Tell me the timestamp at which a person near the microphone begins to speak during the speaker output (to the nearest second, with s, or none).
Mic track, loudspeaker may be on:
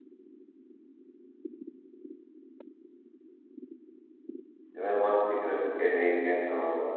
5 s